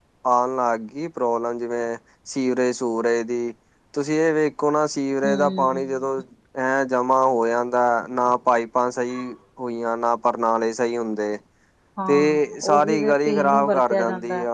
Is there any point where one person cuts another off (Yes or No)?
Yes